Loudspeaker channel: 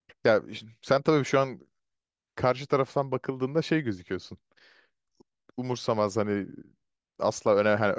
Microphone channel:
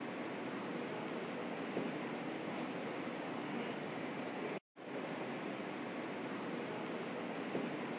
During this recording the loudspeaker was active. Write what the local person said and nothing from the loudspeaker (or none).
none